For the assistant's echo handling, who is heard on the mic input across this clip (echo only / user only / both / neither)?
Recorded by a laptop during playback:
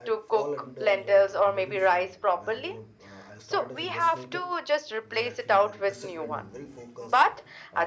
both